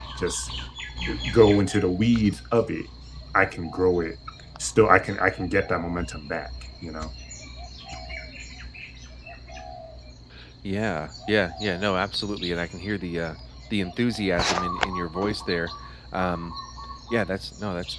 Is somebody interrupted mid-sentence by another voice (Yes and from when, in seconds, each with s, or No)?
No